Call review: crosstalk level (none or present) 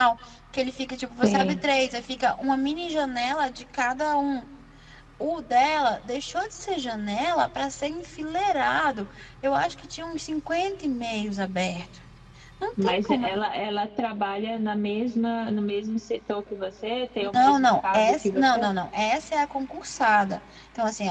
present